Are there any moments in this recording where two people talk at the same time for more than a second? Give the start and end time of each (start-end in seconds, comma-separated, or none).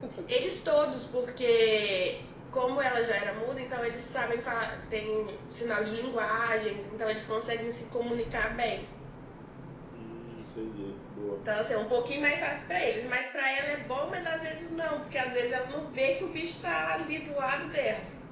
none